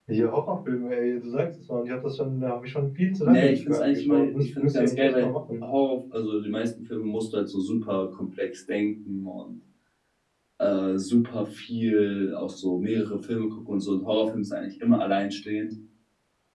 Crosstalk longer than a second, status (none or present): present